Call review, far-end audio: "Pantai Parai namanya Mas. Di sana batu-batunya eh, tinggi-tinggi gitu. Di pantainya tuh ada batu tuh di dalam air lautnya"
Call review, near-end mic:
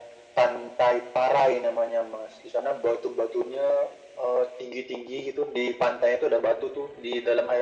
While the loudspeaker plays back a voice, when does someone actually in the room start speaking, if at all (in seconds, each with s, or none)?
none